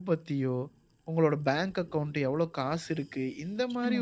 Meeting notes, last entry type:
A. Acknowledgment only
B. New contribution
A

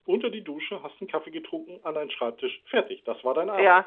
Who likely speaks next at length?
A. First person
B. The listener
B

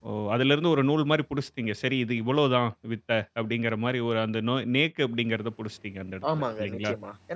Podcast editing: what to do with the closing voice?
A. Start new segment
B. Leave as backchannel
A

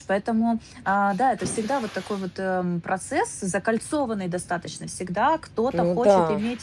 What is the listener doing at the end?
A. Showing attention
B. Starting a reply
A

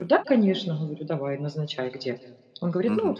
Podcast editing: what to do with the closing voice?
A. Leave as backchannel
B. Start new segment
B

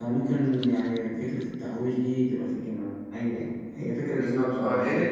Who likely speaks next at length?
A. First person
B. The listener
B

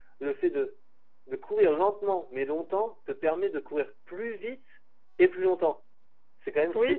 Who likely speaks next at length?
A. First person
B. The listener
B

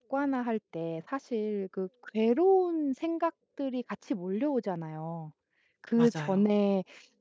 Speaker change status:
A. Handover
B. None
B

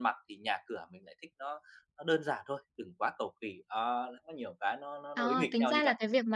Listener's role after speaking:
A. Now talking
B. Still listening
A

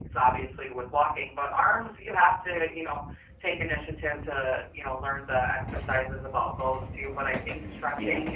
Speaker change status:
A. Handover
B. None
B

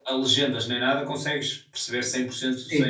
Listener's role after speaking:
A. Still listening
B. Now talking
B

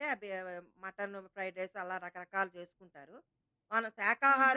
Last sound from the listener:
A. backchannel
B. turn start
A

